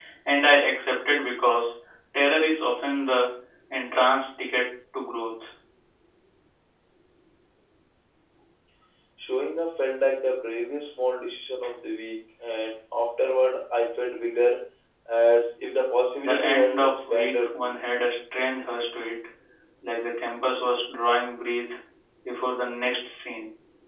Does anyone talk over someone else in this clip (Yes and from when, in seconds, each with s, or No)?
Yes, from 16.2 s